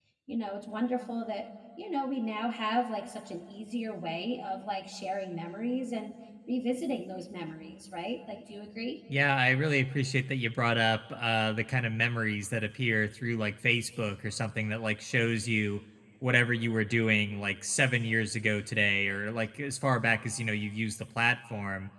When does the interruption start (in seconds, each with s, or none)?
none